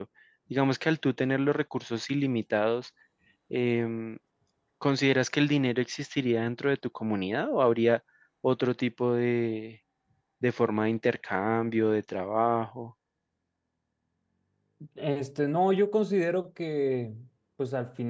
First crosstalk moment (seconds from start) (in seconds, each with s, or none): none